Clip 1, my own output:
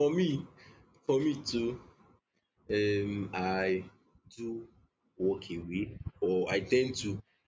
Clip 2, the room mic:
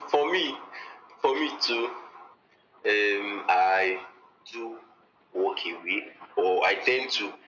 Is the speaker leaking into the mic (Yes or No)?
Yes